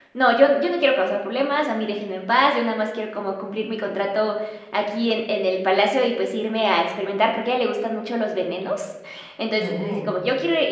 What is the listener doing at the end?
listening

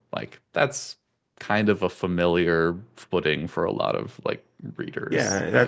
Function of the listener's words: taking over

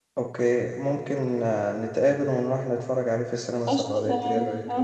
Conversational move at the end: taking over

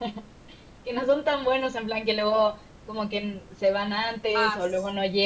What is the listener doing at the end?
taking over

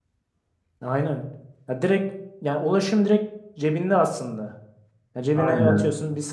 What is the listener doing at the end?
listening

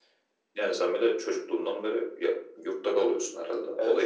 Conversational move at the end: taking over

